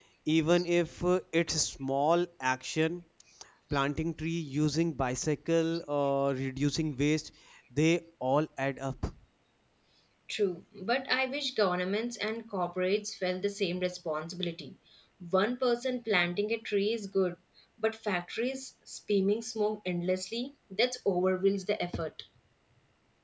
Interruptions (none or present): none